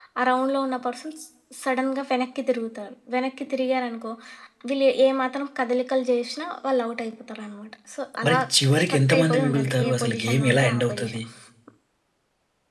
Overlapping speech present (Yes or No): Yes